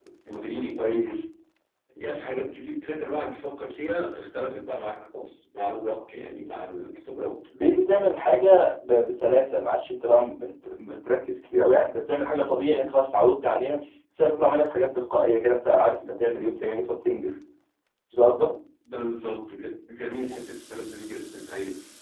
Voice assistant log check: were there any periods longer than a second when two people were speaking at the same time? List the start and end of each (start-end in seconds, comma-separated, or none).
none